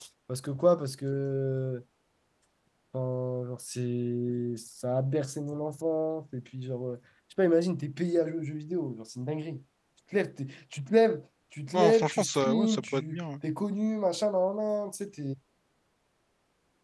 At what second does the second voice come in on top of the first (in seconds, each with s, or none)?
11.7 s